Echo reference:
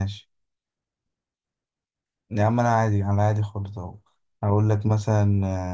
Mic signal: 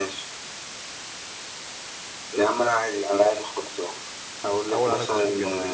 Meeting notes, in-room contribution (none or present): present